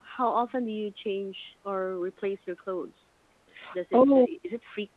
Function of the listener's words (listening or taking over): listening